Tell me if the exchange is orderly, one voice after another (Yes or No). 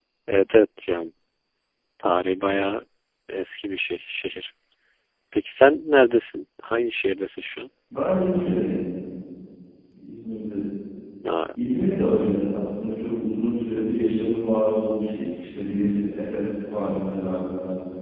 Yes